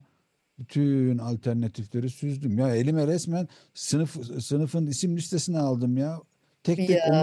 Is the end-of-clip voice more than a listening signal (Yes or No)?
No